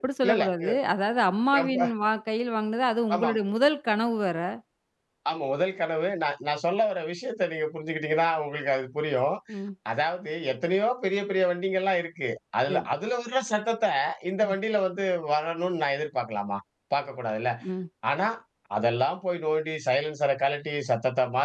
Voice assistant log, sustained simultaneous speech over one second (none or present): none